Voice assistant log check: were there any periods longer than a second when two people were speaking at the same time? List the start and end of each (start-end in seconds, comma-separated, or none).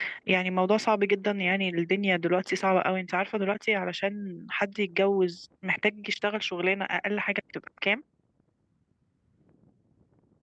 none